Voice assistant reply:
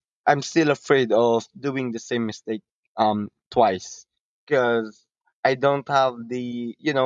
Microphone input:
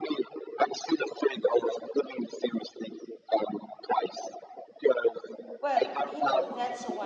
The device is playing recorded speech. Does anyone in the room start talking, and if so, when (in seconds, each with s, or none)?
5.6 s